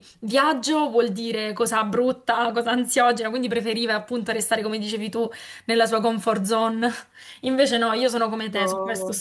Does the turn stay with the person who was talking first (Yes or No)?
Yes